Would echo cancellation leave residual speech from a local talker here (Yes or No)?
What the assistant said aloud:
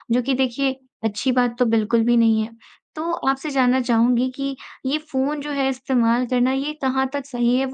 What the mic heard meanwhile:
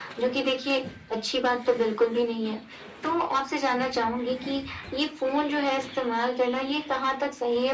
No